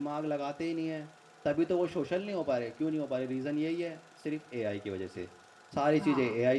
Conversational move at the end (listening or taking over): listening